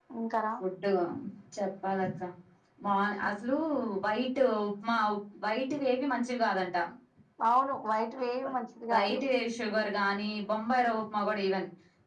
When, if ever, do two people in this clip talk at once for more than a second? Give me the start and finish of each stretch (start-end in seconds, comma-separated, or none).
none